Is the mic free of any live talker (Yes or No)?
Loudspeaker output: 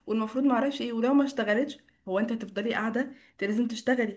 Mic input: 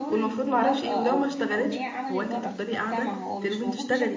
No